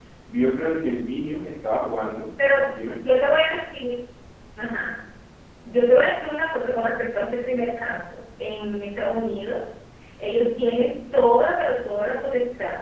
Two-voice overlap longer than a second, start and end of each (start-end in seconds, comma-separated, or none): none